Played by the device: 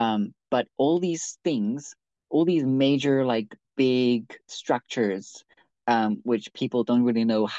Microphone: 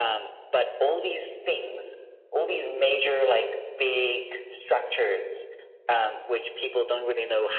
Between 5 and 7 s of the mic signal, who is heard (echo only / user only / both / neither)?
echo only